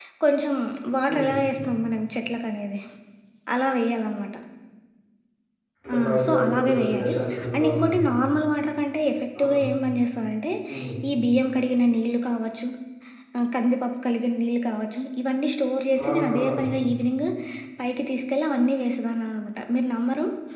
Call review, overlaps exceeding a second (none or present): present